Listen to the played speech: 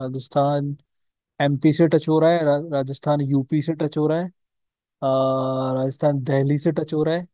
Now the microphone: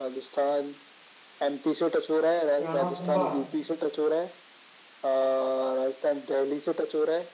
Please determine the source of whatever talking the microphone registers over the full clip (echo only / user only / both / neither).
both